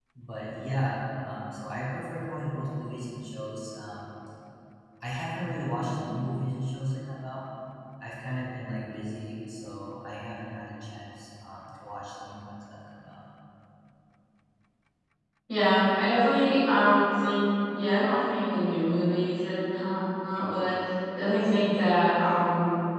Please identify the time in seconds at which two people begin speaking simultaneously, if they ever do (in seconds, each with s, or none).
none